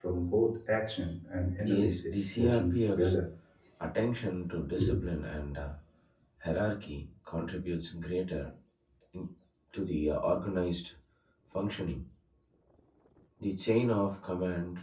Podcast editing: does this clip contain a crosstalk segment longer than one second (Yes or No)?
Yes